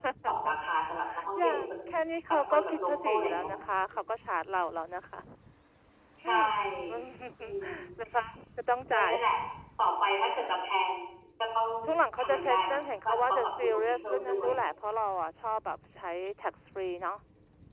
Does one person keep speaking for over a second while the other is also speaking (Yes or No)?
Yes